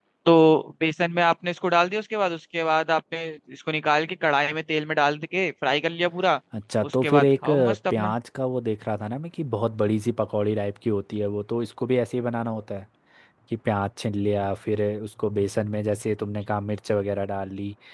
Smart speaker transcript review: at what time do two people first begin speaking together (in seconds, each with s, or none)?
6.9 s